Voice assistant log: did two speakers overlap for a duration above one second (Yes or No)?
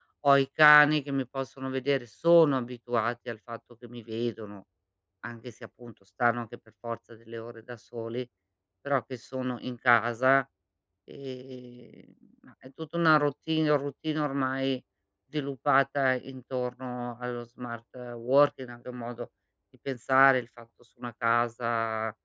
No